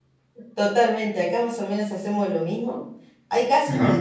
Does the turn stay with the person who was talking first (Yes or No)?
Yes